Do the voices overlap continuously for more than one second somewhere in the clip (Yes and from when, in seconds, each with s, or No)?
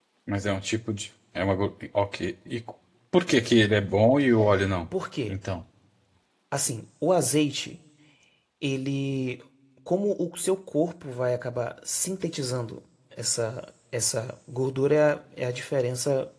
No